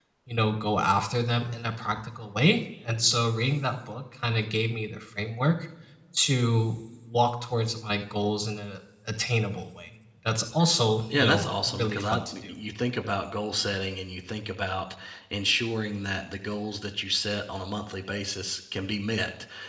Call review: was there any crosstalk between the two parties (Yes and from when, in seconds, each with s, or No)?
Yes, from 11.1 s